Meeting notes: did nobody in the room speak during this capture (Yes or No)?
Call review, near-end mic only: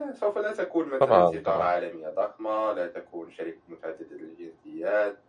No